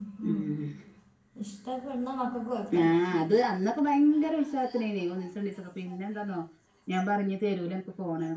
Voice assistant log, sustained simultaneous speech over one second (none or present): none